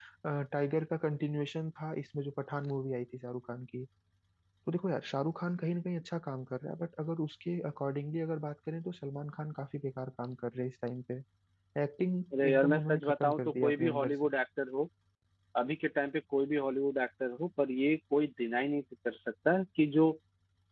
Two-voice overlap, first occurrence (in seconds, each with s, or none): 12.4 s